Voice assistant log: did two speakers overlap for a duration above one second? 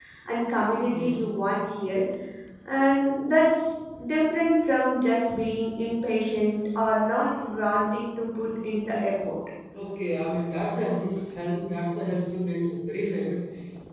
No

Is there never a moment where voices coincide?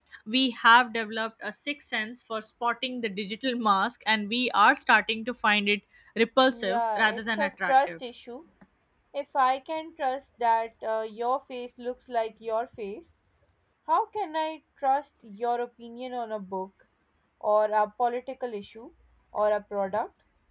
No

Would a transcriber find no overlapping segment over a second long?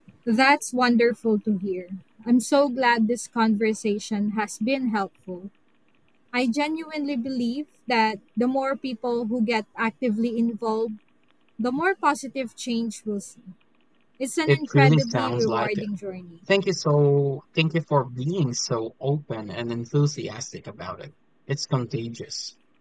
No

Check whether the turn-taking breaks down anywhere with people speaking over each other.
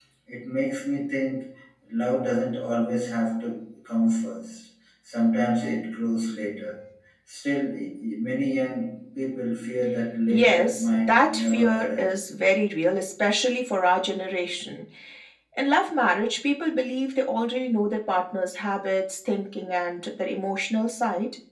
Yes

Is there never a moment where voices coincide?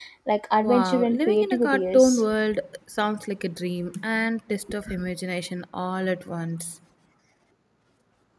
No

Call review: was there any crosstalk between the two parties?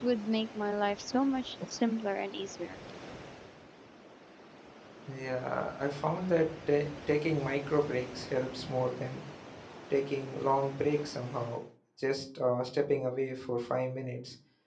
No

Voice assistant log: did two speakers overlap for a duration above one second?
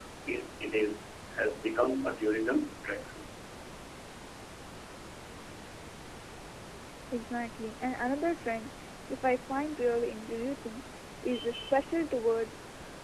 No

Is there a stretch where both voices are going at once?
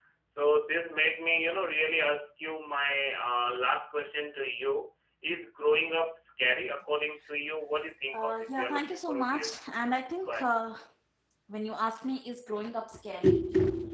Yes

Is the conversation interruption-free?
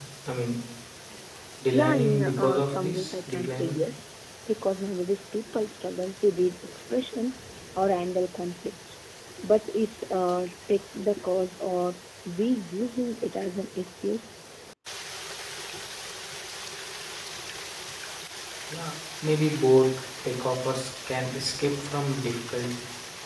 No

